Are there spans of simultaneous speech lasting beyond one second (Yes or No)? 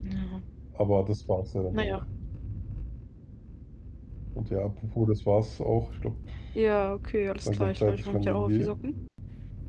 Yes